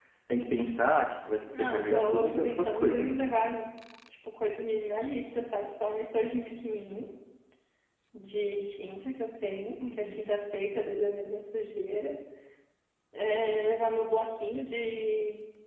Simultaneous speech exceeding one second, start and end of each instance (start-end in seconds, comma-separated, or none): 1.6-3.2